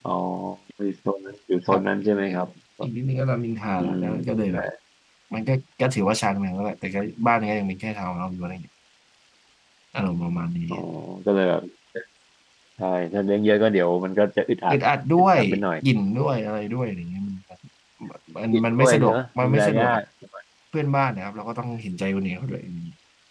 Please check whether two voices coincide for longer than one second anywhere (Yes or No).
Yes